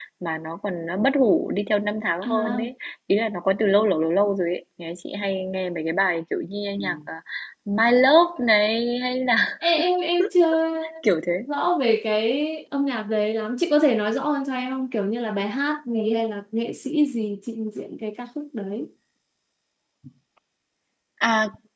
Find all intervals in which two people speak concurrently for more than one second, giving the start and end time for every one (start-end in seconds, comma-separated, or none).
none